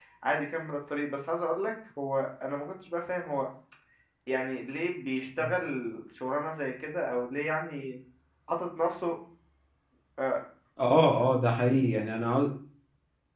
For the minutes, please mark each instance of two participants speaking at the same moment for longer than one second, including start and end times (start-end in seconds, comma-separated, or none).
none